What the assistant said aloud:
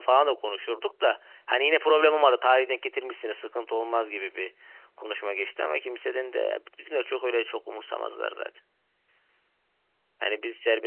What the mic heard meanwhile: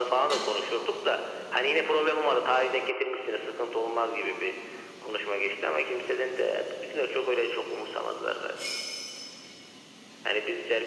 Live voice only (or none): none